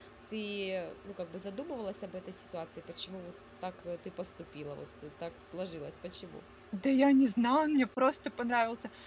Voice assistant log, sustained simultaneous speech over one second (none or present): none